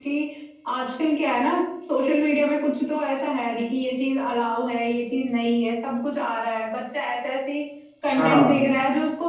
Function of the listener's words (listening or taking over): listening